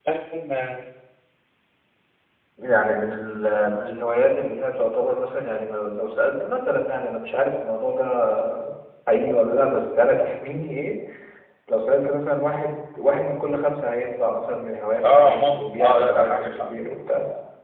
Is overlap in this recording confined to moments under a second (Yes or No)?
No